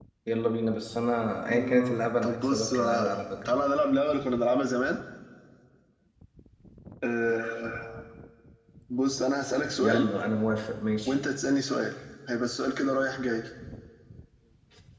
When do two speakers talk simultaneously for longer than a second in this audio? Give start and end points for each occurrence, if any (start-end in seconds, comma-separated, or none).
1.4-3.5